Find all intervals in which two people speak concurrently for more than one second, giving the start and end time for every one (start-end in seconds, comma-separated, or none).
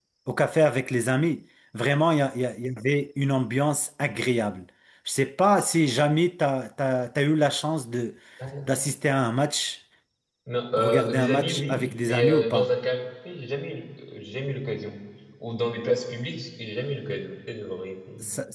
10.8-12.7